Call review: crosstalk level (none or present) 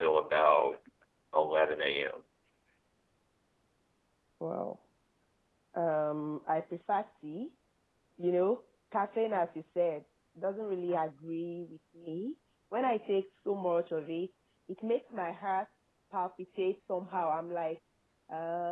none